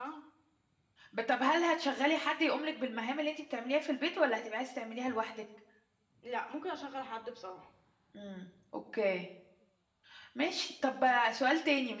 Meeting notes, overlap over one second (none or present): none